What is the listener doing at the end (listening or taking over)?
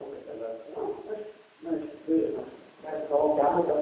taking over